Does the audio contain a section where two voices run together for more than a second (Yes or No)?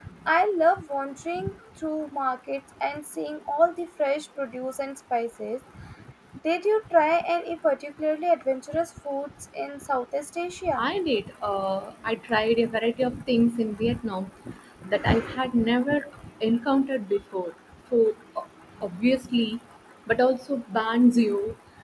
No